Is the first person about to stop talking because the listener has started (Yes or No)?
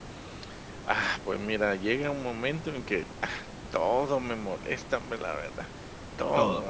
No